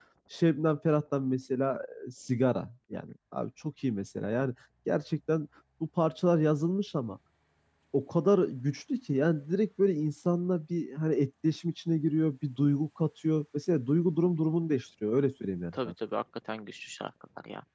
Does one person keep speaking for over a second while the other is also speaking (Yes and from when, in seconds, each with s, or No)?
No